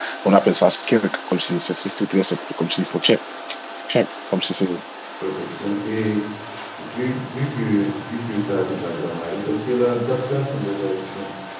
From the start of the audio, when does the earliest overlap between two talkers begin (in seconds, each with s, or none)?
none